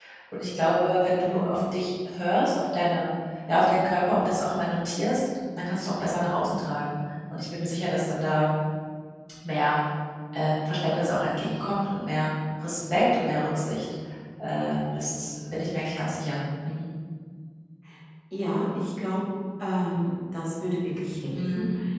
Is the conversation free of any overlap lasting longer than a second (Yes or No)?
Yes